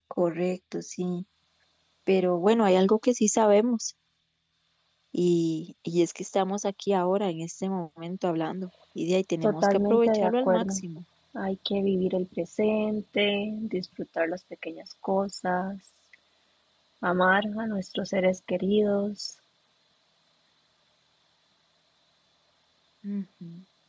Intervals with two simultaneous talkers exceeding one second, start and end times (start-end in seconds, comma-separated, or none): 9.4-10.8